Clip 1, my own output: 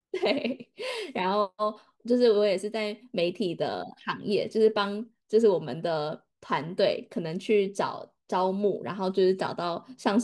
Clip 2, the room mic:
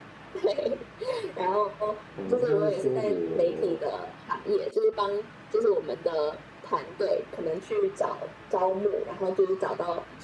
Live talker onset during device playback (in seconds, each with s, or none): 2.1 s